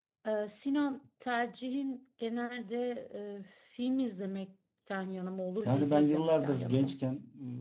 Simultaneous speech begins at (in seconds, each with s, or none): 5.6 s